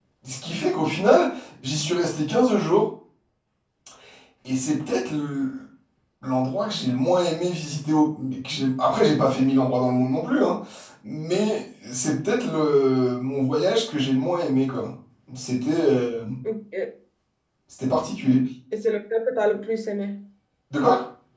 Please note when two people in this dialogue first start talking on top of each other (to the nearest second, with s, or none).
none